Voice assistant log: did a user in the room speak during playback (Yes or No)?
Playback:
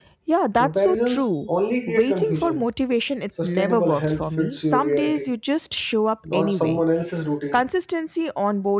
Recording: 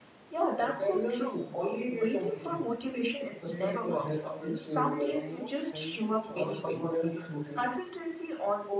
Yes